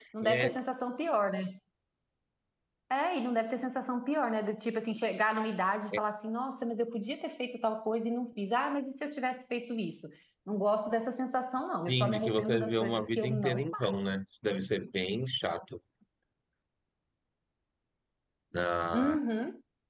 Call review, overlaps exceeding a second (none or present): present